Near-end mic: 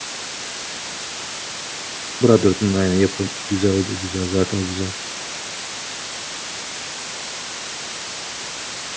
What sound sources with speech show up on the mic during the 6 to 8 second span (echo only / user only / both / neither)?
neither